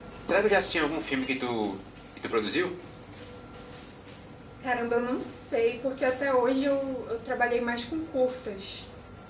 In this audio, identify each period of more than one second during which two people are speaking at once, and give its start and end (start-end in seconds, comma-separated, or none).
none